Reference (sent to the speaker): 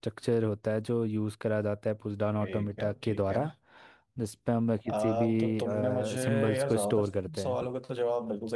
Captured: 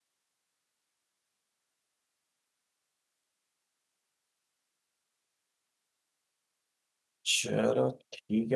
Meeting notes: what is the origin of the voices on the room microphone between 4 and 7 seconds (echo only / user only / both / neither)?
neither